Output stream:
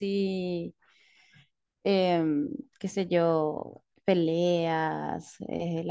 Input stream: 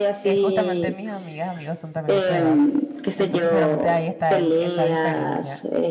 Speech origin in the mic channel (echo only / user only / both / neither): both